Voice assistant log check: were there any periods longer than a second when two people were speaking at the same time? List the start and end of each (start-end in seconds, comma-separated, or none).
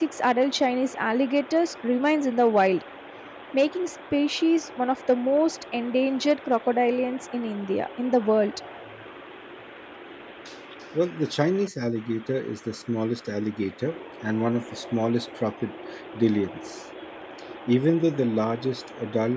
none